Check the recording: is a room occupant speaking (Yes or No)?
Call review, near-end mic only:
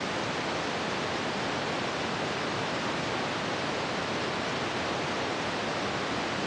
No